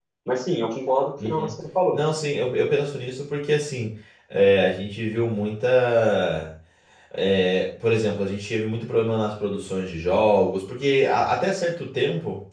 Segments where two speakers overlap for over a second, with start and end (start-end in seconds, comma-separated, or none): none